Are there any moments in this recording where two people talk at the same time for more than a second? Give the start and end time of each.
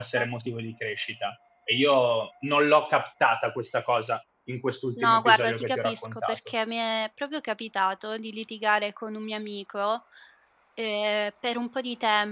5.0-6.4

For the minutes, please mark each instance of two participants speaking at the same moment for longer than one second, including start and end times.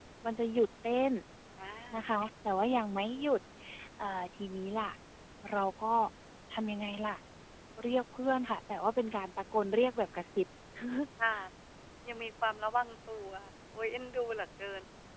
none

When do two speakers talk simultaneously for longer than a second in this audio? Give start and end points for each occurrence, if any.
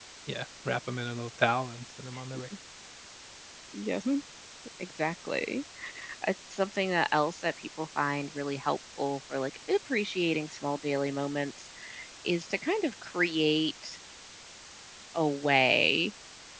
none

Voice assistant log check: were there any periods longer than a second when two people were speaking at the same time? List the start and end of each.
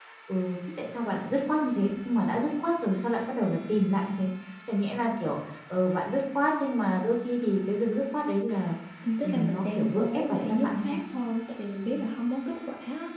9.2-11.0

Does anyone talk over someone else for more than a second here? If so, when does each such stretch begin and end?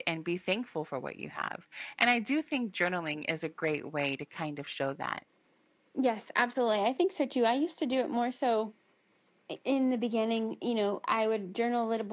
none

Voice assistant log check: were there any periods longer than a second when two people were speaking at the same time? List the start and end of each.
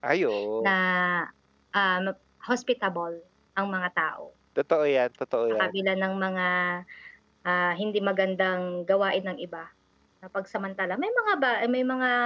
none

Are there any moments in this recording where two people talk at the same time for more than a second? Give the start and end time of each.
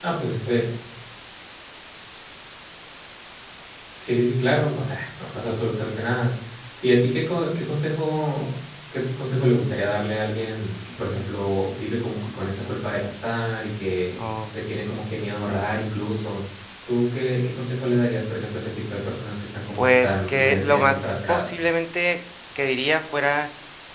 19.8-21.5

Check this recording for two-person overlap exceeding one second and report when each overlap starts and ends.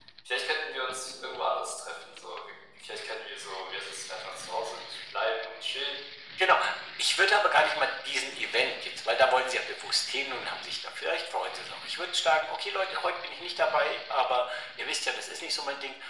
none

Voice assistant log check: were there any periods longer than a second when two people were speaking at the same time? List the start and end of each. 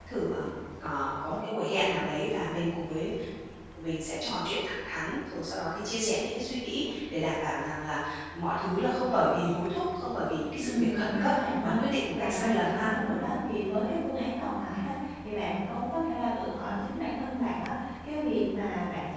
10.6-12.9

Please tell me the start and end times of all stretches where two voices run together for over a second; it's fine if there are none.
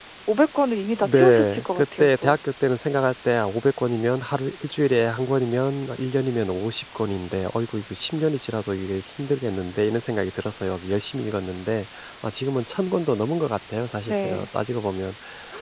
0.9-2.4

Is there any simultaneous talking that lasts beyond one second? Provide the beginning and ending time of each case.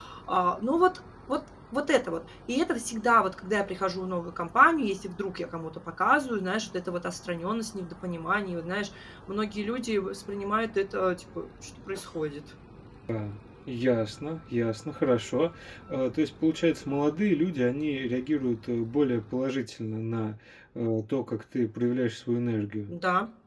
none

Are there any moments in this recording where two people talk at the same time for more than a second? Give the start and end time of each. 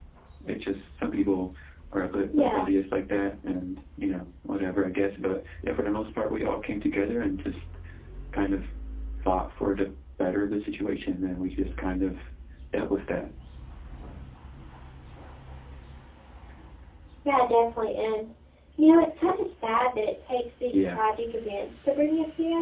none

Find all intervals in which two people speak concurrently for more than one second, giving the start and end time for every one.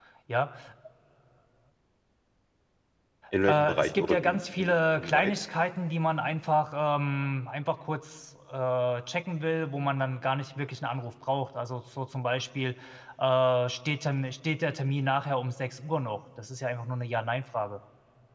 3.5-5.3

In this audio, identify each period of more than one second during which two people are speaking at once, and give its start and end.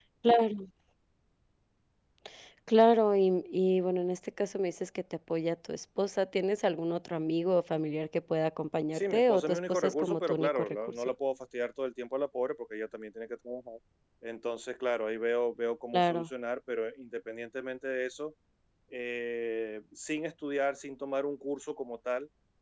8.9-11.1

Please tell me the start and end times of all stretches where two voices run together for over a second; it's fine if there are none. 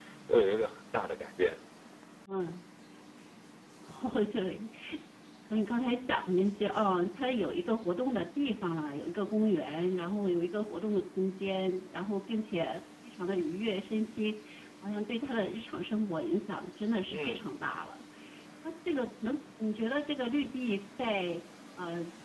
none

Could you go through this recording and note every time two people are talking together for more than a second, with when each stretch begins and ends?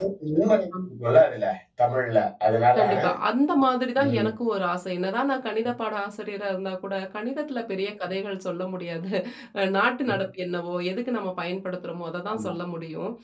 none

